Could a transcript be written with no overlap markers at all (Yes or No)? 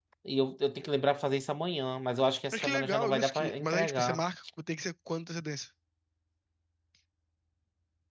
No